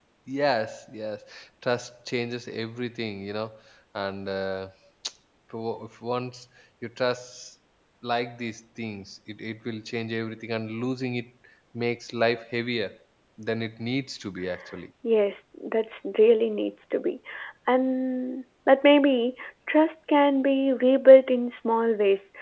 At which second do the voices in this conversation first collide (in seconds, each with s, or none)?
none